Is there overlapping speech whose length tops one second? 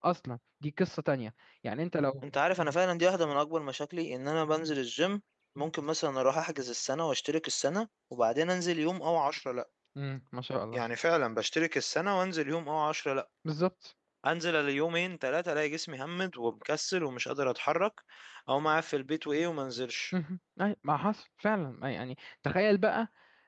No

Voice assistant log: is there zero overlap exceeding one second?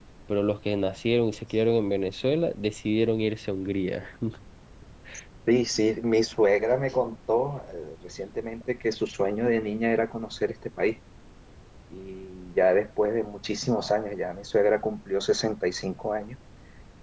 Yes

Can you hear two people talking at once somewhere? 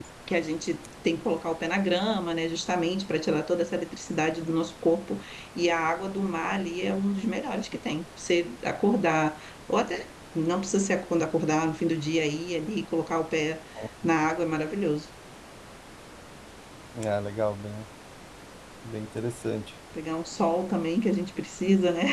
No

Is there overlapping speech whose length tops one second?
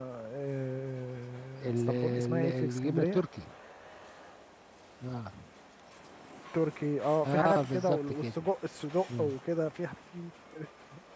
Yes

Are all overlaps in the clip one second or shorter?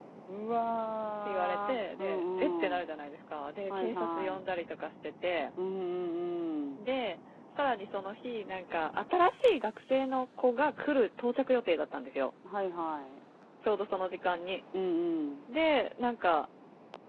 No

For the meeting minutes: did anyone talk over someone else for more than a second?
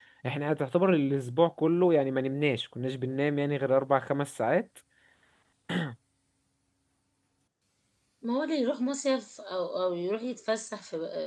No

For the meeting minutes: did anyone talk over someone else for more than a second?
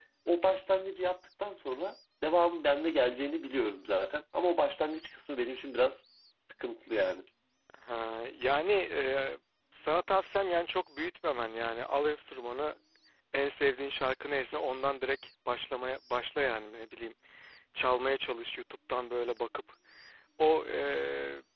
No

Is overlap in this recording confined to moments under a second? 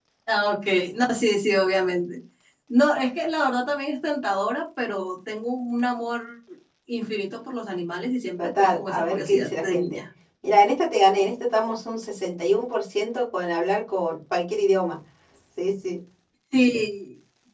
No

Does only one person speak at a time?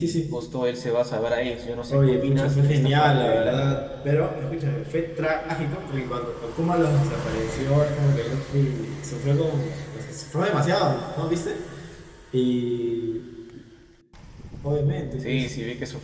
No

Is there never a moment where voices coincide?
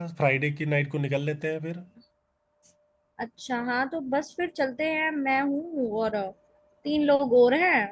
Yes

